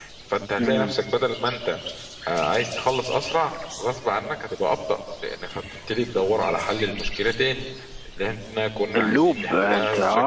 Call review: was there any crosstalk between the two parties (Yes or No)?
Yes